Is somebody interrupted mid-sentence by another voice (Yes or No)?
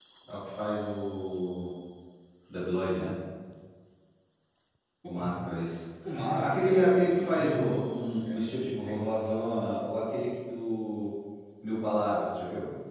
Yes